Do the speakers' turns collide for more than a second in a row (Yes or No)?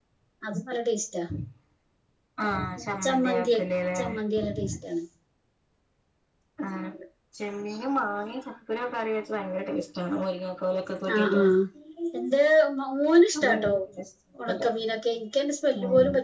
No